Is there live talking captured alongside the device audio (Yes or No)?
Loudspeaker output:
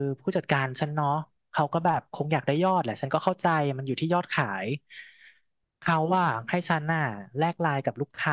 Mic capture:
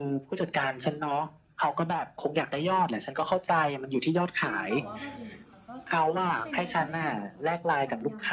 Yes